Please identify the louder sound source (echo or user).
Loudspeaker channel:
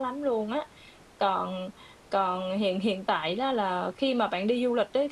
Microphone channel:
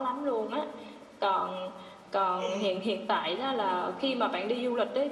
echo